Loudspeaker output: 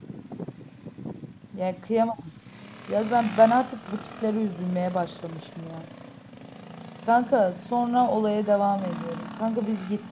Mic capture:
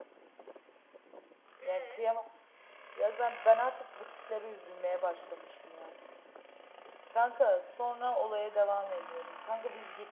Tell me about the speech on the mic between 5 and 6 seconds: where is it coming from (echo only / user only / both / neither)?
echo only